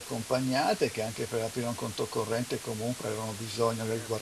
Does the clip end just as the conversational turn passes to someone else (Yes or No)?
No